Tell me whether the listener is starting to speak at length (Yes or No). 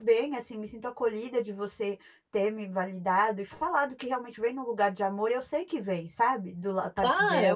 Yes